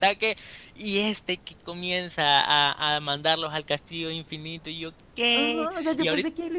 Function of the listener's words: taking over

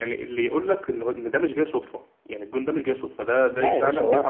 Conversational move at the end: taking over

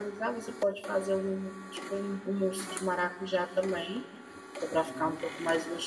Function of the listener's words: listening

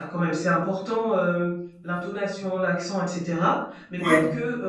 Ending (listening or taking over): listening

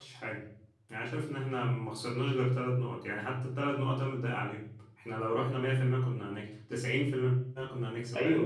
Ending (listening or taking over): taking over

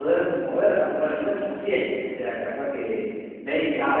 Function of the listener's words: taking over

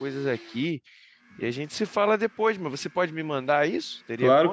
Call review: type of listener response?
taking over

